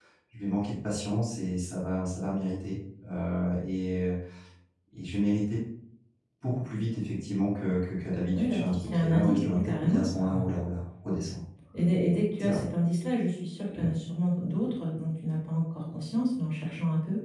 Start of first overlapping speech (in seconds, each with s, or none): 8.3 s